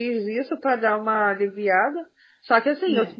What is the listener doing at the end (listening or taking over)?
listening